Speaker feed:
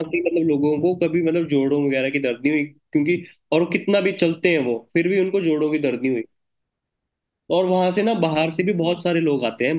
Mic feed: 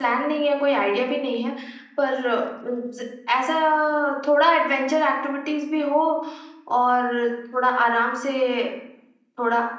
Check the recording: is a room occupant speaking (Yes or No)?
Yes